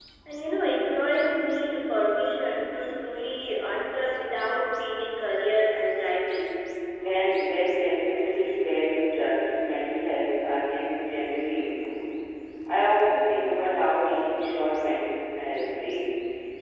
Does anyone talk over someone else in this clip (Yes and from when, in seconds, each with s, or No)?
No